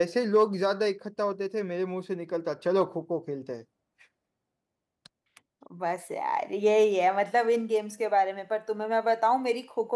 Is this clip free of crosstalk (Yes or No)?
Yes